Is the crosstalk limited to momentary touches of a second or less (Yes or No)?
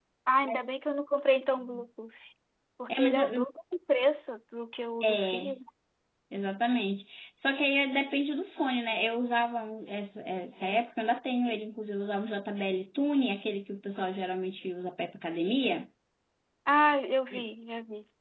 Yes